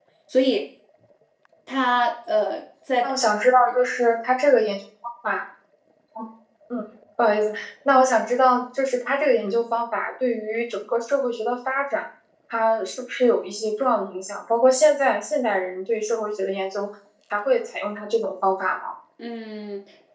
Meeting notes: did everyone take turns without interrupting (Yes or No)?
Yes